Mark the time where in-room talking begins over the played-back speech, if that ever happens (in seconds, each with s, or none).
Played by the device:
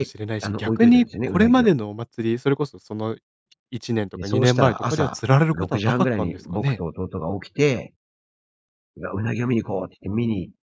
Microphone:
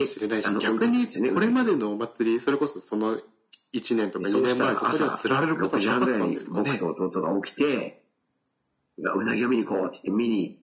none